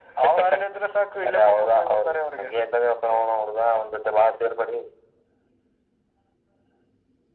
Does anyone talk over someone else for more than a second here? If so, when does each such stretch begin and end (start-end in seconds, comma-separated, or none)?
1.3-2.5